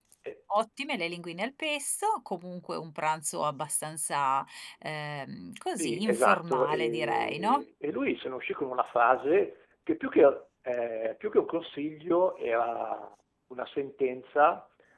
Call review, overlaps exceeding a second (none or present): present